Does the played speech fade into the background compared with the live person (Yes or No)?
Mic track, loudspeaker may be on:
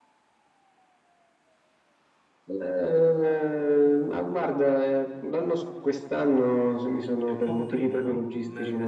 No